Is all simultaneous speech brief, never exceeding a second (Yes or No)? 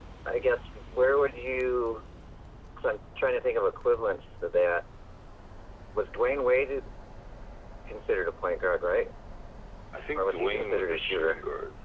No